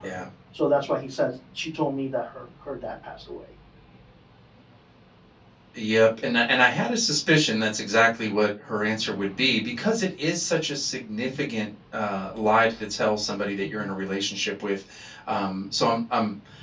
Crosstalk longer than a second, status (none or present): none